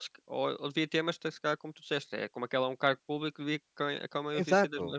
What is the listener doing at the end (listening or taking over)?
taking over